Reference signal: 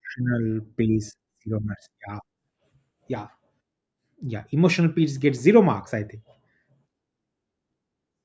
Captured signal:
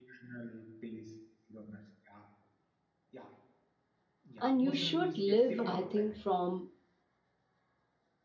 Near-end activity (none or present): present